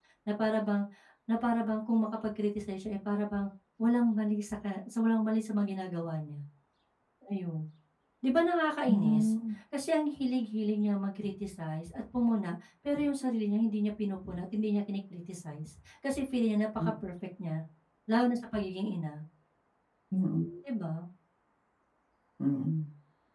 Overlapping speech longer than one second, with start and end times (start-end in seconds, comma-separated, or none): none